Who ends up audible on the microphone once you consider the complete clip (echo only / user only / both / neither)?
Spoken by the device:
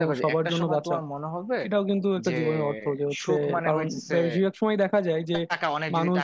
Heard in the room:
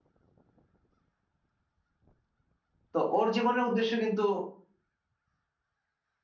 user only